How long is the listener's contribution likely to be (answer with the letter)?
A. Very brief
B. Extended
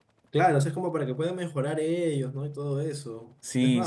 A